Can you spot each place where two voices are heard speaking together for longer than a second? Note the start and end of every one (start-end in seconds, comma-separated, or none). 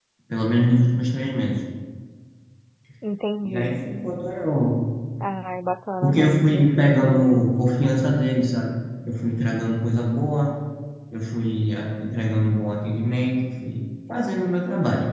6.0-7.4